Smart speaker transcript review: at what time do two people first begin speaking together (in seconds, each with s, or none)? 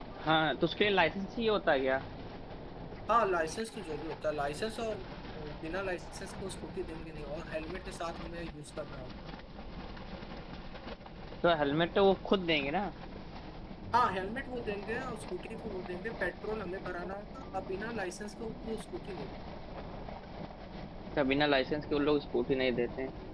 none